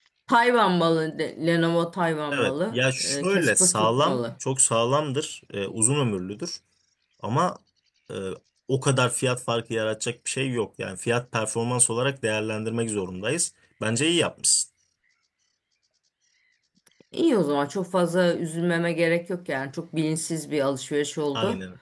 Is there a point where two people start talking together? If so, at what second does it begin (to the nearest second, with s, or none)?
2 s